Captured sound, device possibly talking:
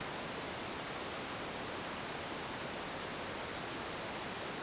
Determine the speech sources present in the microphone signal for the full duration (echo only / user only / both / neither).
neither